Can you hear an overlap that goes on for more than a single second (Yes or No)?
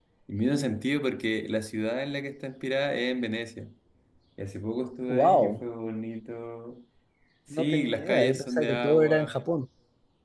Yes